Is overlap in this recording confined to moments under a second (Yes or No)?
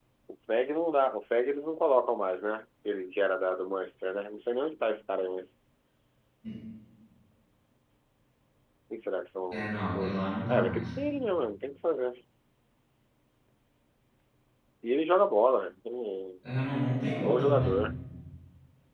No